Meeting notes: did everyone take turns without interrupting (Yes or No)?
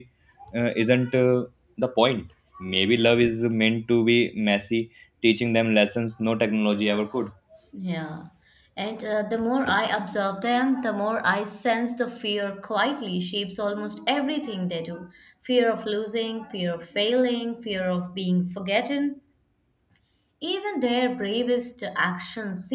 Yes